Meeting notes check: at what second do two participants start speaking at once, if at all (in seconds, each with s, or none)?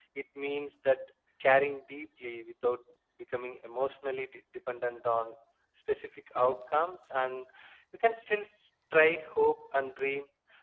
none